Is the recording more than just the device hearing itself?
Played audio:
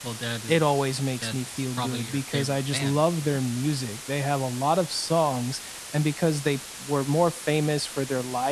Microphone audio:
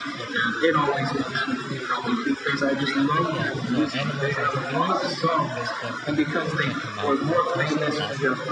Yes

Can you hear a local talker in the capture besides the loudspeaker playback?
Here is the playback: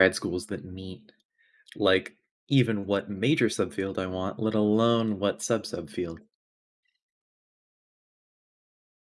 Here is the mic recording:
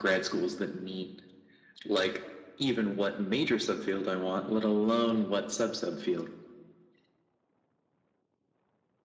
No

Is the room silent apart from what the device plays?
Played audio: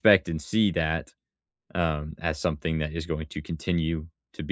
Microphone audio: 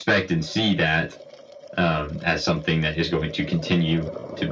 Yes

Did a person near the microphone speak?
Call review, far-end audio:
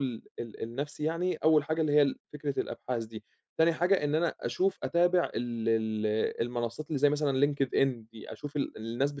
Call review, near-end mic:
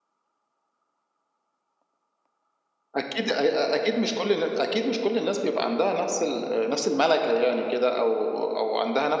Yes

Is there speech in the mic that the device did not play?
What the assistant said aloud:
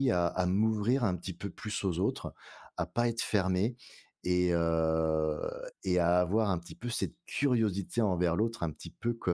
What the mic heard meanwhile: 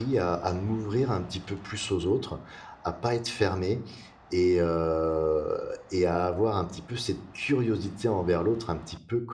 No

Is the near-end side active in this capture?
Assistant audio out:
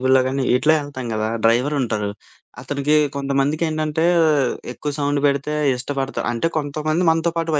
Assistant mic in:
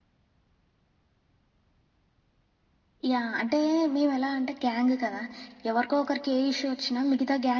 Yes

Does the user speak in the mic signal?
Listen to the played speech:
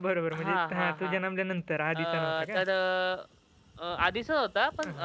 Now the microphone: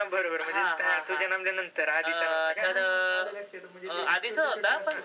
Yes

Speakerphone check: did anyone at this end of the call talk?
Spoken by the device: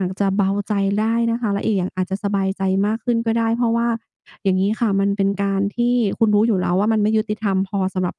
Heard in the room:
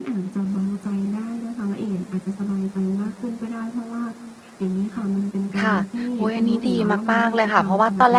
Yes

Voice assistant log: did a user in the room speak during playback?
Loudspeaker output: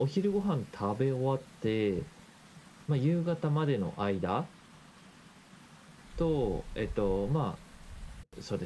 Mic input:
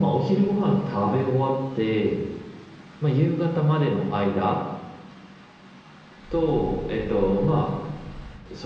No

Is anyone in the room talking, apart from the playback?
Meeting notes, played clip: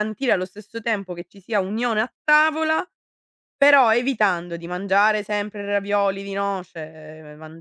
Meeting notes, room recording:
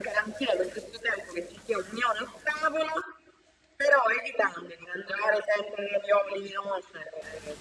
No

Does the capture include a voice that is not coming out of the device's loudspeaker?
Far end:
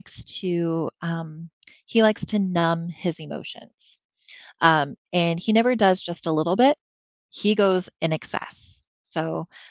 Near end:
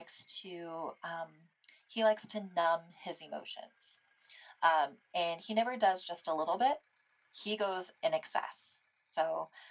No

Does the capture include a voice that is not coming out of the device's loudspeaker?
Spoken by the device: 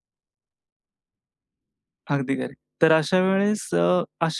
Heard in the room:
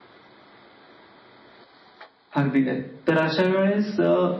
No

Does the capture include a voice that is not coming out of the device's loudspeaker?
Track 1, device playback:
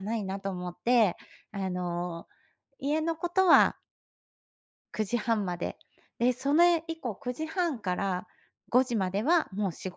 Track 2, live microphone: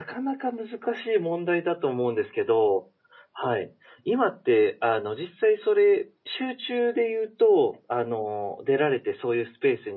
Yes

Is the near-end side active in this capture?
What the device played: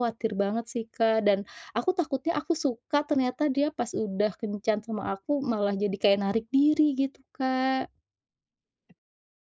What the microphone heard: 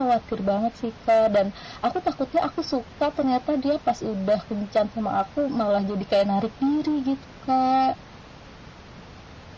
No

